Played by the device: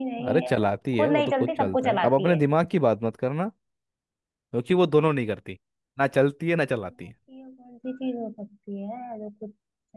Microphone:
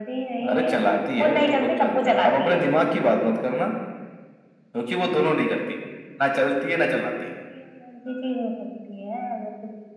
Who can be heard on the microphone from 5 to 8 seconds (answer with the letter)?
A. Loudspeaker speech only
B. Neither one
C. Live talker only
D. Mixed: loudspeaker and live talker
A